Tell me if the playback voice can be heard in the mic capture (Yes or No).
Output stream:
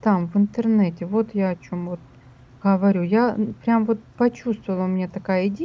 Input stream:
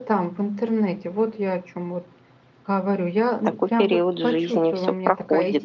Yes